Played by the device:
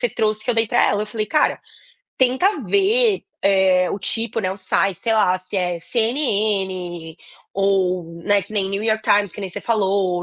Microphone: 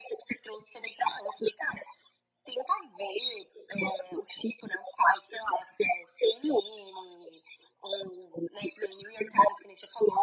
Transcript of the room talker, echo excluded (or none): none